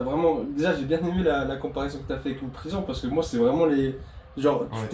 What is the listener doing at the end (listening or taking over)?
listening